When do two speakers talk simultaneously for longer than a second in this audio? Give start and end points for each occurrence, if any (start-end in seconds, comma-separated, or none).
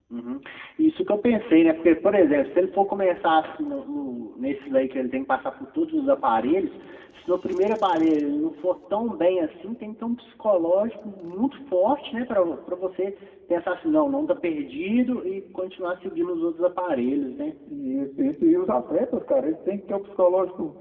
none